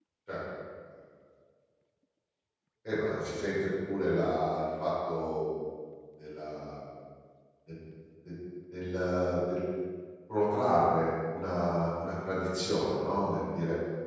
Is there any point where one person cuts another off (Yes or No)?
No